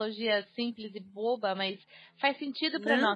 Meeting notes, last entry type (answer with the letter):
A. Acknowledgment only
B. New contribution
B